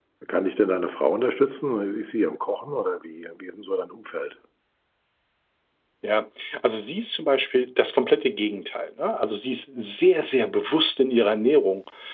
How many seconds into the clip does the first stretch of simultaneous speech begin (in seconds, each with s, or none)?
none